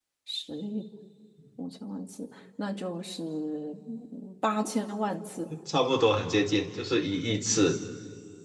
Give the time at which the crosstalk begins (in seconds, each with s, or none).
none